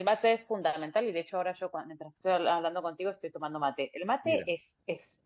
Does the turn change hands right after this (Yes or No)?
No